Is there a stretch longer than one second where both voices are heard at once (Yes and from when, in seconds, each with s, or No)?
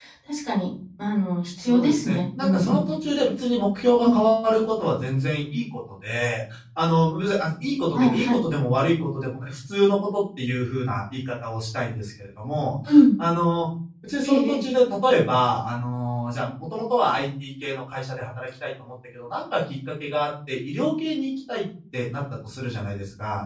Yes, from 1.6 s